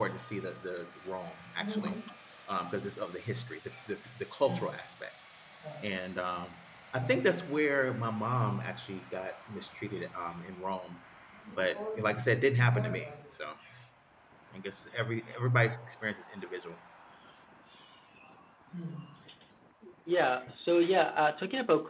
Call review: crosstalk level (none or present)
none